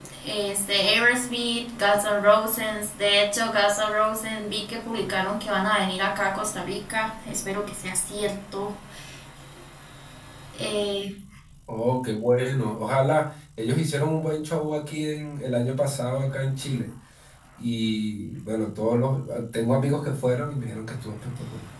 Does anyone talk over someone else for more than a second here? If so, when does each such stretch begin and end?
none

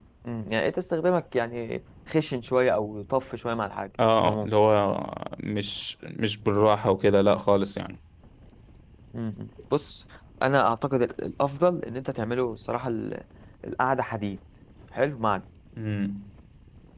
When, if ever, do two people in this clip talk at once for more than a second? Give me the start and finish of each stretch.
none

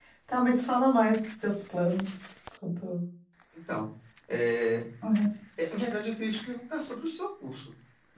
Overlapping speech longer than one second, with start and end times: none

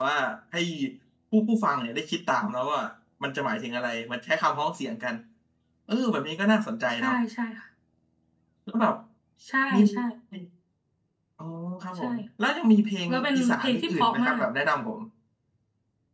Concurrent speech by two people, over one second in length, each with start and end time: 13.1-14.4

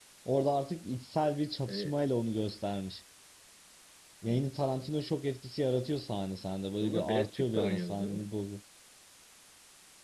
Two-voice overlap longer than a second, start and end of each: 6.8-8.3

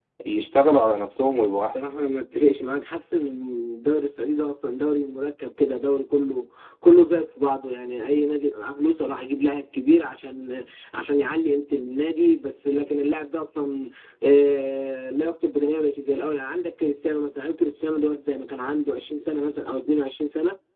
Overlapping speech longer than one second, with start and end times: none

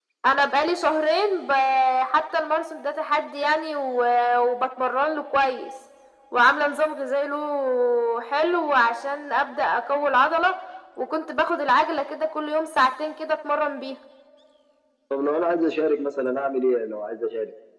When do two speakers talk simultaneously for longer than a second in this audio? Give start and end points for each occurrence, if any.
none

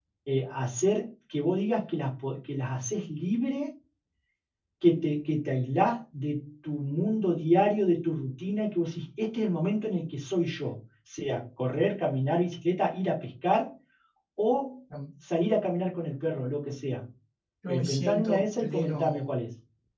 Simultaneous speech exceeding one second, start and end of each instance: 17.7-19.3

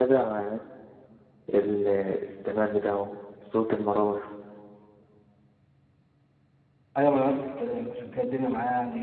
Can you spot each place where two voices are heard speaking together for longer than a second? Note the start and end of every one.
none

